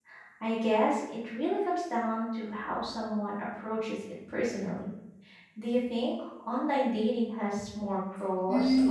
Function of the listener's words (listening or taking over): taking over